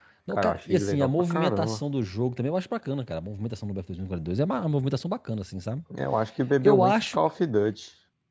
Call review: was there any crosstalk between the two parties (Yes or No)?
Yes